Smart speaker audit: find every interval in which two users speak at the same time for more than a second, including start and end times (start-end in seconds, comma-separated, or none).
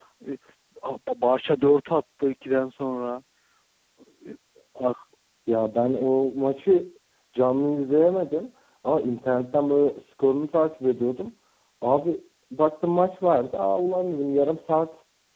none